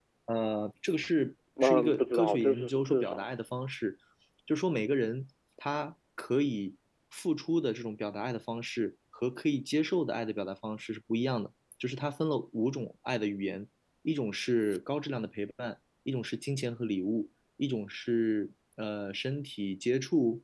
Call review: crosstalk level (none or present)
present